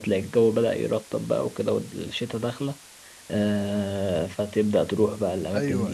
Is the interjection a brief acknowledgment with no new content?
No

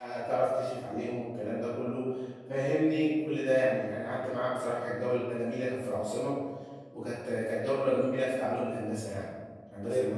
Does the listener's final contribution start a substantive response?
Yes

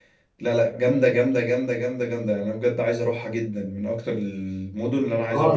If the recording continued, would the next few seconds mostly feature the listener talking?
Yes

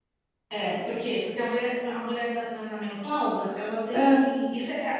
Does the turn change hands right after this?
No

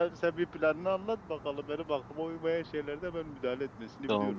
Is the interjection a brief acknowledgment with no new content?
No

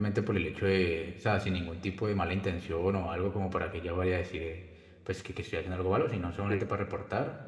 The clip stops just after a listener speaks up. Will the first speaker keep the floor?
Yes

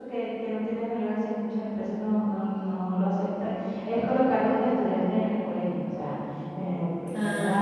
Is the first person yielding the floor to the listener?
No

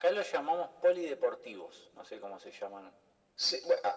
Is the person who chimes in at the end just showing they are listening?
No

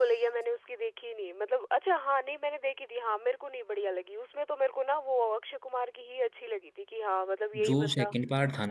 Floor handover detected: Yes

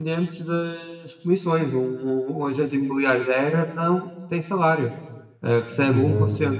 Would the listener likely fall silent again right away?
Yes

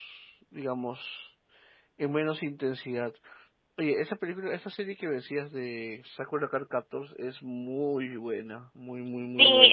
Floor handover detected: Yes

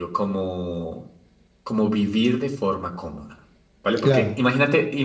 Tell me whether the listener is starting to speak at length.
No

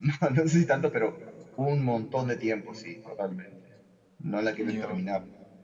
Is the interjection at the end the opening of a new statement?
No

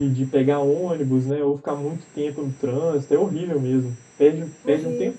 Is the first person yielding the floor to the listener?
No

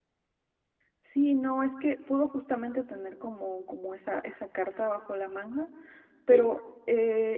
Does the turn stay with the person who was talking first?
Yes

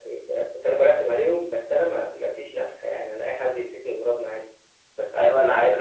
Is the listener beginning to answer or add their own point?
Yes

